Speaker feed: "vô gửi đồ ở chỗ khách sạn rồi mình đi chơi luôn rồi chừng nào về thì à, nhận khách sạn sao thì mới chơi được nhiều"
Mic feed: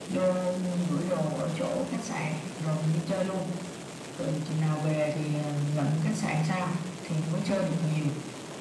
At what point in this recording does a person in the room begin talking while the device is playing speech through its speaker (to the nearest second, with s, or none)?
none